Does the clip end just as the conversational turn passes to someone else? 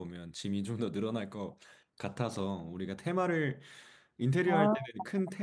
No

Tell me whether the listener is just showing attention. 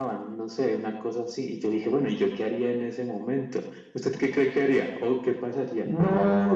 No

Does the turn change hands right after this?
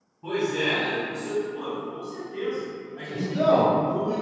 No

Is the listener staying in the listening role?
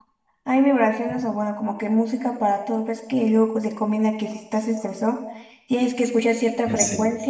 Yes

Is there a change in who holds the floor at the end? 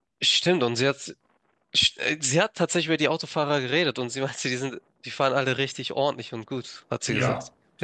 Yes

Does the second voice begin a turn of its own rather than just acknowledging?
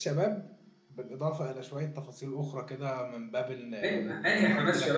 Yes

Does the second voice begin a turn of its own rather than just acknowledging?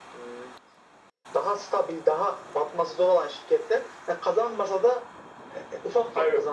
No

